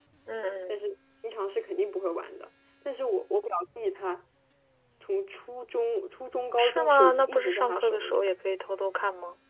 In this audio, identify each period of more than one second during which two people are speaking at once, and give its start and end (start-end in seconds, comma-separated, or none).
6.6-8.2